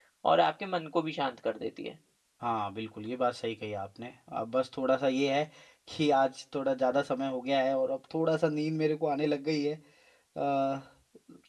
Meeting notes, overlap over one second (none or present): none